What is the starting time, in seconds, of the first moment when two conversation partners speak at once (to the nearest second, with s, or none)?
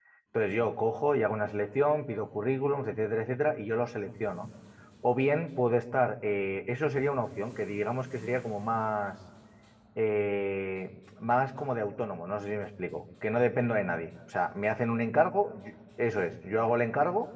none